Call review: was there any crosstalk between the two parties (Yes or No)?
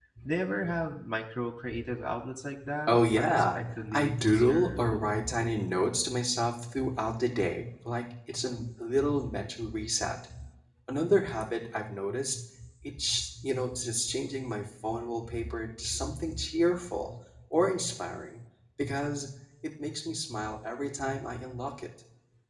Yes